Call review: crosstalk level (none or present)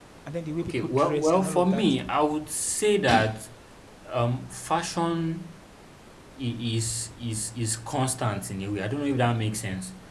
present